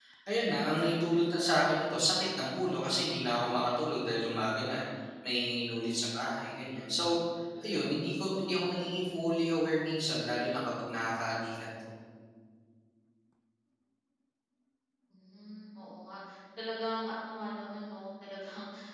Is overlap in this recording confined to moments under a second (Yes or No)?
Yes